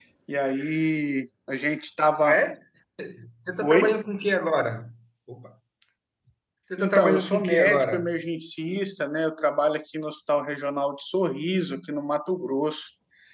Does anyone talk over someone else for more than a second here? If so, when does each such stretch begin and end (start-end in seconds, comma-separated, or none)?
6.8-8.1